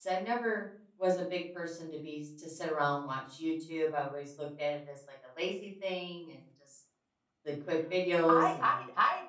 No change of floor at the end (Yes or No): No